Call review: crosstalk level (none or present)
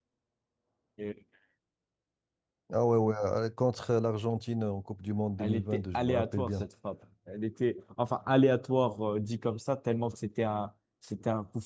present